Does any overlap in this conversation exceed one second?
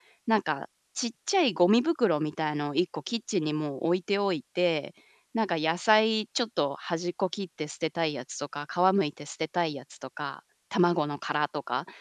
No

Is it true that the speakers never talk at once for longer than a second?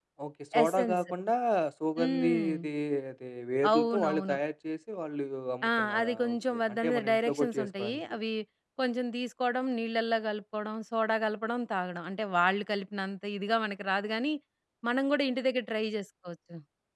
No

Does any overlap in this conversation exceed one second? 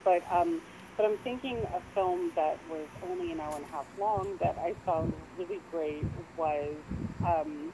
No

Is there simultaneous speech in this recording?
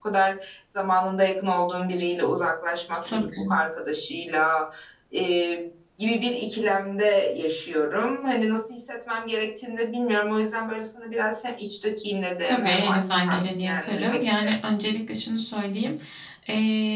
Yes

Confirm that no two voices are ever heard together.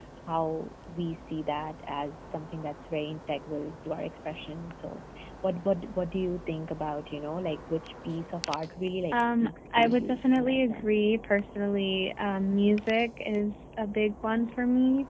No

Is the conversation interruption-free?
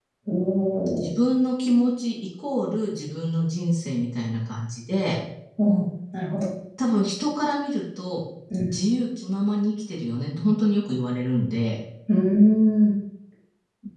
Yes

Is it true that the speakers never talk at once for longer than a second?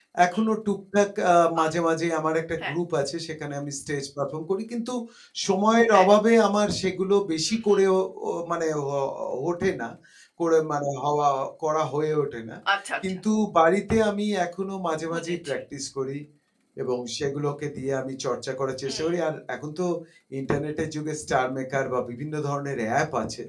Yes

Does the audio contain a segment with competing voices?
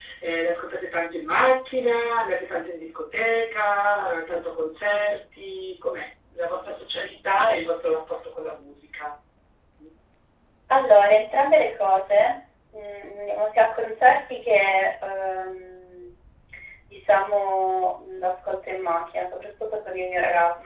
No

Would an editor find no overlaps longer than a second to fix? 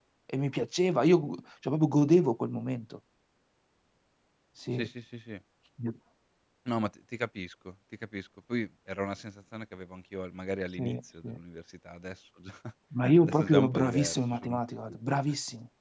No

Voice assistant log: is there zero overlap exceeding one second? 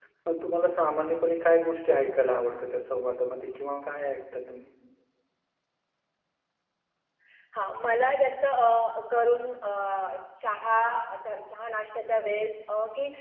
Yes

